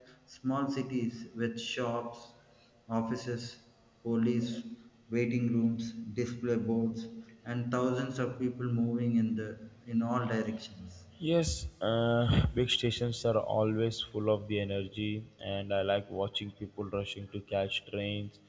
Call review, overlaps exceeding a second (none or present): none